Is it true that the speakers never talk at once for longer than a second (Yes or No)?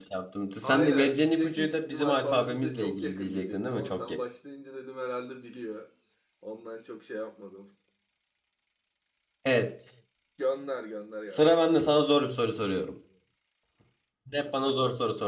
No